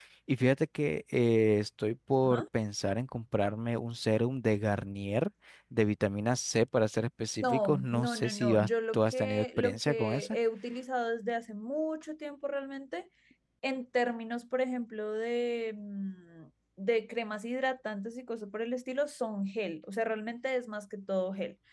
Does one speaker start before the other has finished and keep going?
Yes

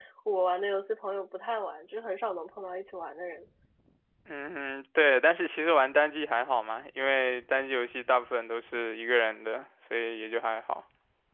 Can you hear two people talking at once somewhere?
No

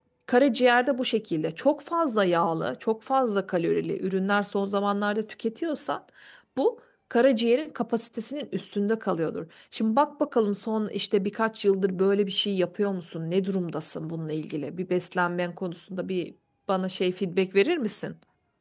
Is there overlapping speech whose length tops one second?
No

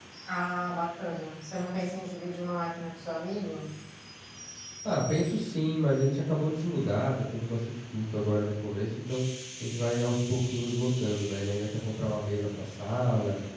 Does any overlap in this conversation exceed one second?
No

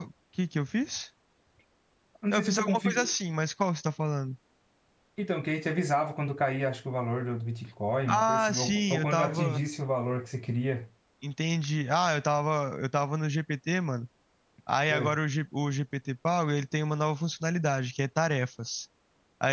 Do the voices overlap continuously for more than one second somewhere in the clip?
Yes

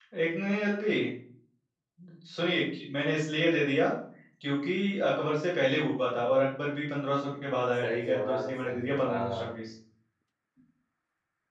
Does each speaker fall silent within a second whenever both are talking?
No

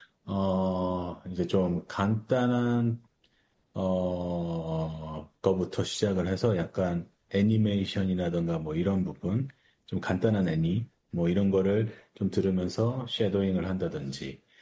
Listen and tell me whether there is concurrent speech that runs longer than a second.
No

